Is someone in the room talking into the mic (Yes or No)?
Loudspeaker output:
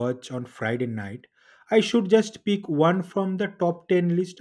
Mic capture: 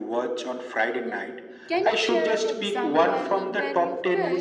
Yes